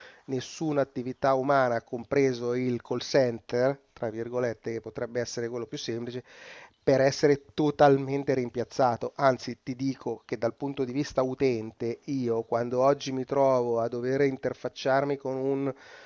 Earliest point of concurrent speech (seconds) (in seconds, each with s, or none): none